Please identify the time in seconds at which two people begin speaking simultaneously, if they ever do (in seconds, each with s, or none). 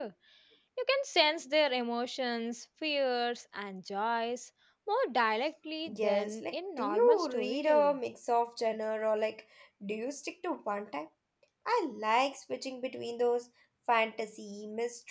5.9 s